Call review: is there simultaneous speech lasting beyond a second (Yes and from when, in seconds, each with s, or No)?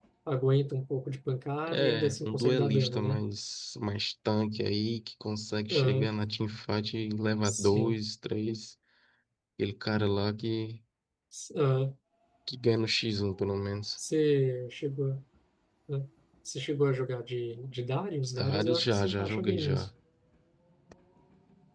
Yes, from 1.7 s